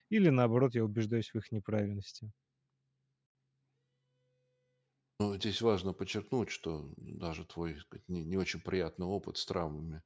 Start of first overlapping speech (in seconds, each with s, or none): none